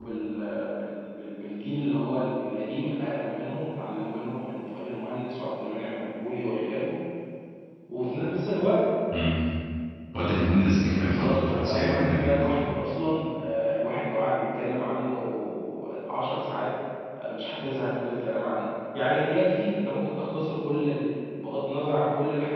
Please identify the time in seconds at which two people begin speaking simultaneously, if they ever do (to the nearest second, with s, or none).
11 s